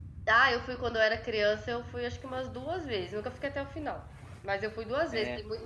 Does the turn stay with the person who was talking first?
Yes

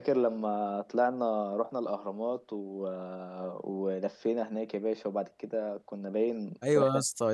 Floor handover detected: Yes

